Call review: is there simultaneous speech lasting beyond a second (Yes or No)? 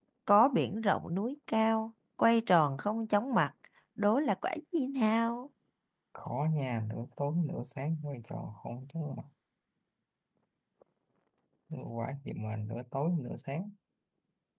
No